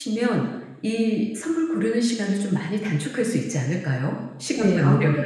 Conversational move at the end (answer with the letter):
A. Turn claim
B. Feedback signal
A